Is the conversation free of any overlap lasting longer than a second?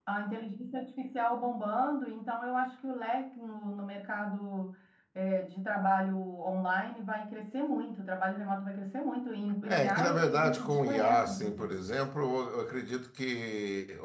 No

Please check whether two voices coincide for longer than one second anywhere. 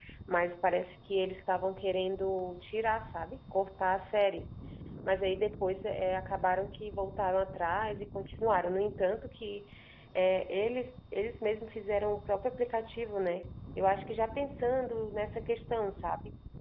No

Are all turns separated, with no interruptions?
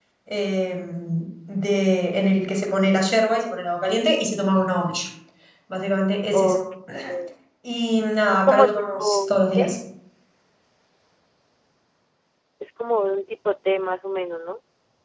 No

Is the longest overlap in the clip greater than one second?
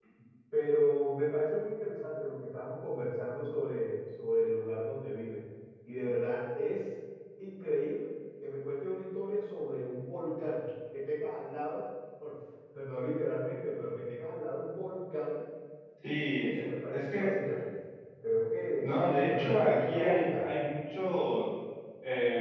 Yes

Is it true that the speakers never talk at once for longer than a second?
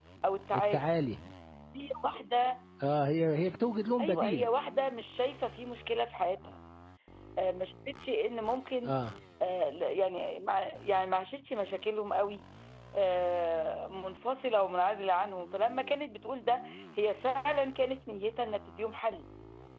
Yes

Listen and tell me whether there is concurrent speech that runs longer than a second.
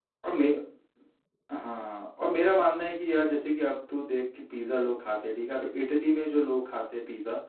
No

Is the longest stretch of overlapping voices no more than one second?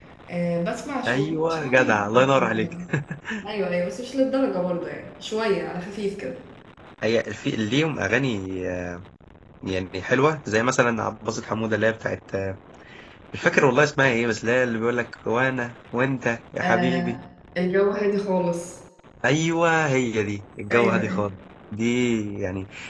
No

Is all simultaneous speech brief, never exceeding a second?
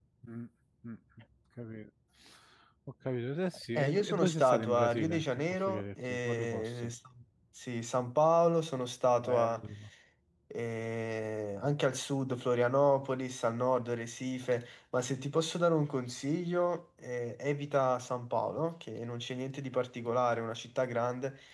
No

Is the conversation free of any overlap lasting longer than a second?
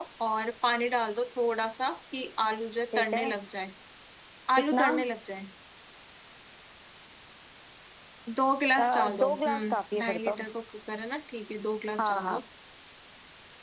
No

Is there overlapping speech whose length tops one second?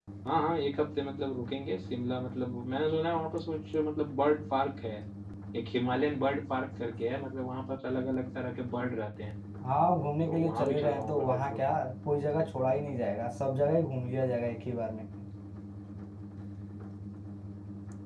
Yes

